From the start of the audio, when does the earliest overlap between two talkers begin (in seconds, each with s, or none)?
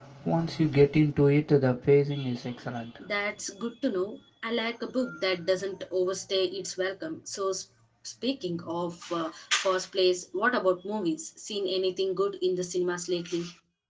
none